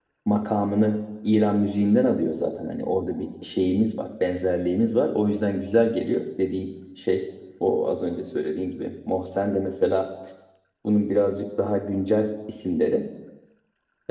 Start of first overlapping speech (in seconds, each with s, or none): none